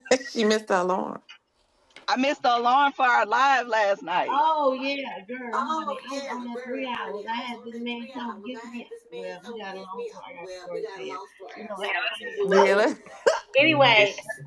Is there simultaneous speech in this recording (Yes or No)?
Yes